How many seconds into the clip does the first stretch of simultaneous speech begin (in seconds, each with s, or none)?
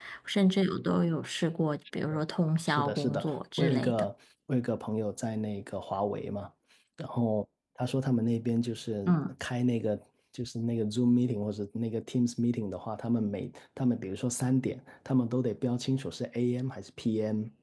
2.7 s